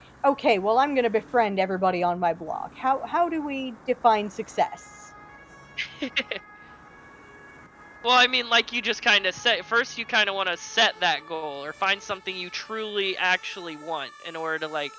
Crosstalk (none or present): none